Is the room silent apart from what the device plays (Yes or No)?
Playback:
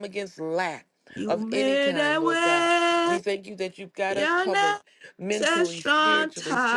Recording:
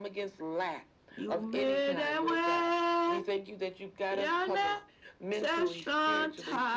Yes